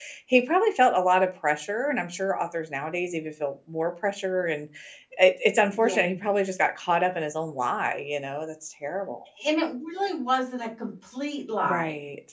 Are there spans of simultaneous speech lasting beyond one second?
No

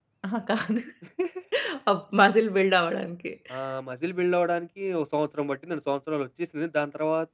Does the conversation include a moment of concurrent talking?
No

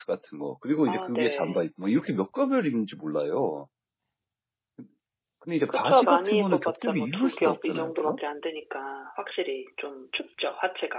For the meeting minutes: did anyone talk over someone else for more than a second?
Yes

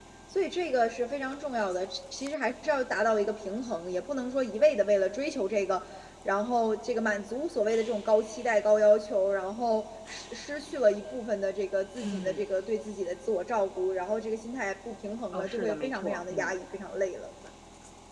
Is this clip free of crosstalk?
No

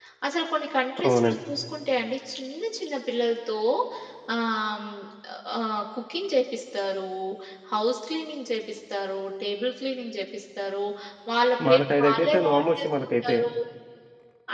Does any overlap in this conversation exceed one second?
Yes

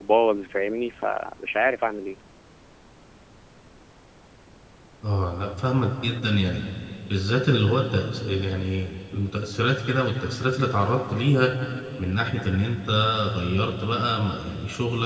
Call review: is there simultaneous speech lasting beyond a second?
No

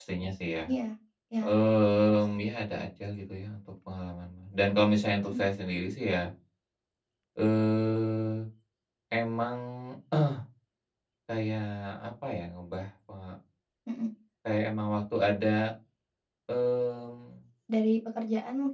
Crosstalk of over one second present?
No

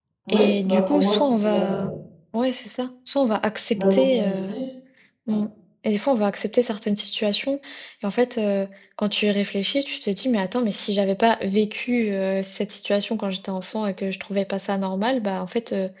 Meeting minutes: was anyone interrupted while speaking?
Yes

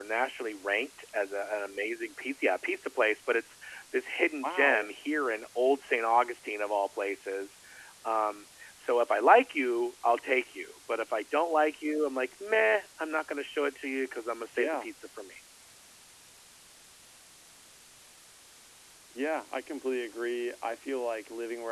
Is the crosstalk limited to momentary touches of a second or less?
Yes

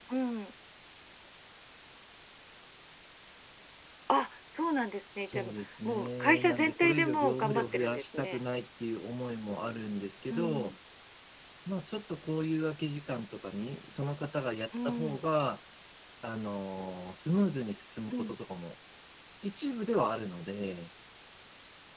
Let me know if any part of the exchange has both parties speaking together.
Yes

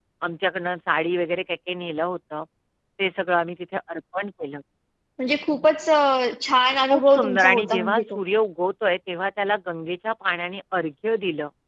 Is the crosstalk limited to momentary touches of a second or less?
No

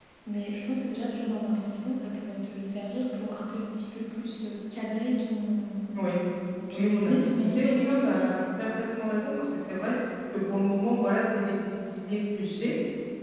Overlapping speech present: Yes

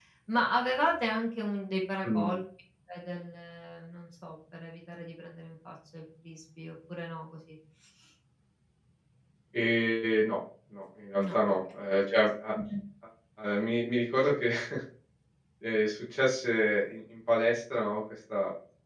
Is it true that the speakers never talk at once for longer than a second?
Yes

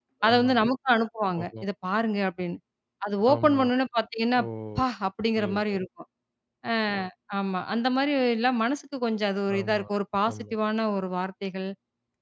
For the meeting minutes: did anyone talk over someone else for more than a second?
No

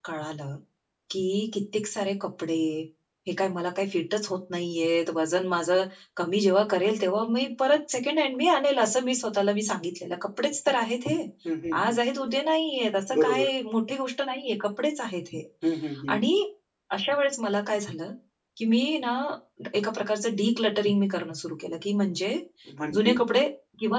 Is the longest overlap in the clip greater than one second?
No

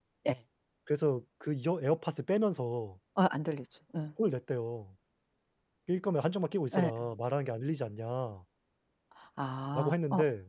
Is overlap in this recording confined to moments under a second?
Yes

